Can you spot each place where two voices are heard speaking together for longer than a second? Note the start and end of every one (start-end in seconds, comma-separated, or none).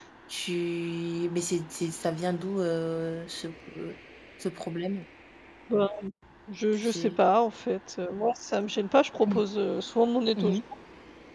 none